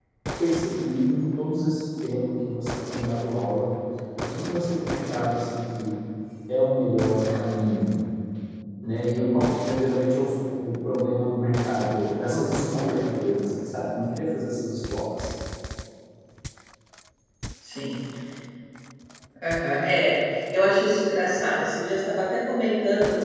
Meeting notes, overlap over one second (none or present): none